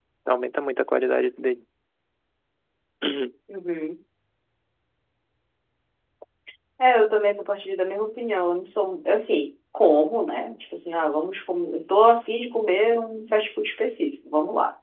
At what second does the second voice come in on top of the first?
none

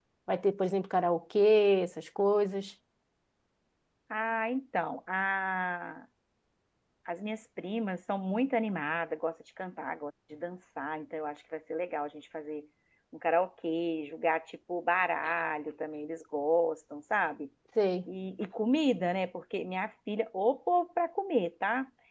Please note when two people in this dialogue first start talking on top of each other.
none

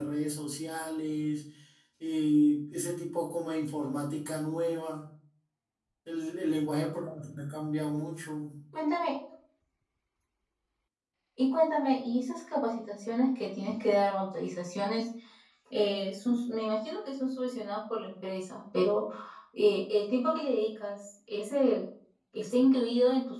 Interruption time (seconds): none

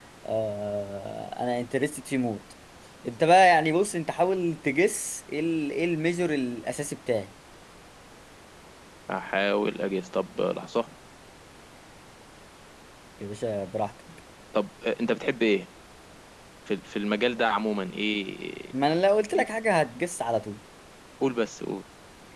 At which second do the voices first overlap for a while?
none

